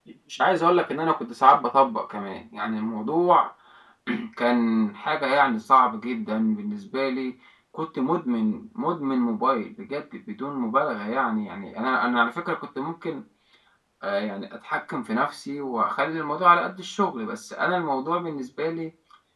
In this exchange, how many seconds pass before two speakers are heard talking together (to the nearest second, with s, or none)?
none